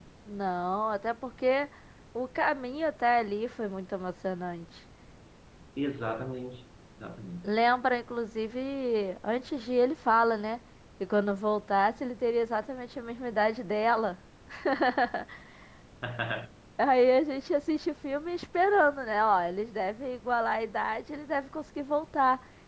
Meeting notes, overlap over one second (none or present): none